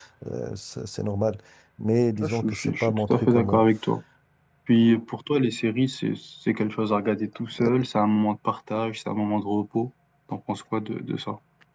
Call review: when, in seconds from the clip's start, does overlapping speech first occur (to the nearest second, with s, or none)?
2 s